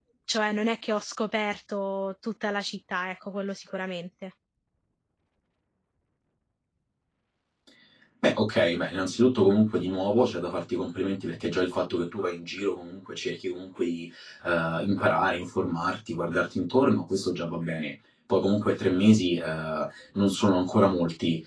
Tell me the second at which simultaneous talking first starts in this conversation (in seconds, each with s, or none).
none